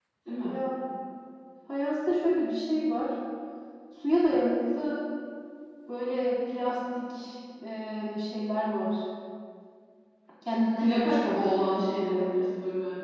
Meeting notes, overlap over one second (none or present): present